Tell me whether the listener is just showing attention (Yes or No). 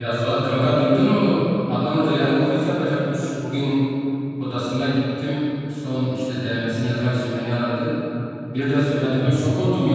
Yes